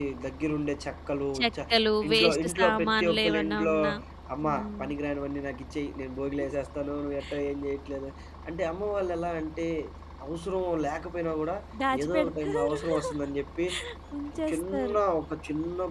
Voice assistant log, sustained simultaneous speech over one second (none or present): present